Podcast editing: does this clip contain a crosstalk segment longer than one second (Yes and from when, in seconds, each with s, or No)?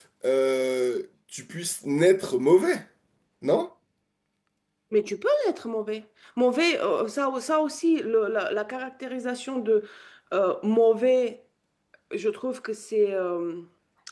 No